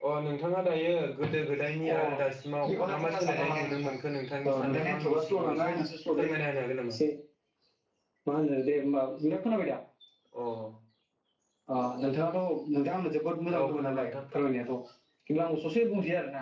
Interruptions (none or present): present